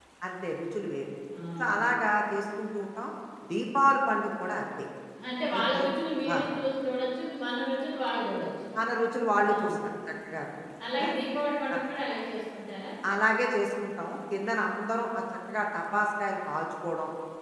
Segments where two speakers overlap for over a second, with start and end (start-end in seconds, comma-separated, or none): none